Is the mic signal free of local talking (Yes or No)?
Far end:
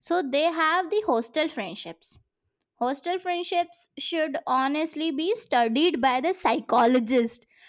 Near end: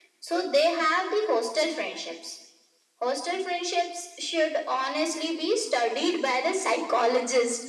Yes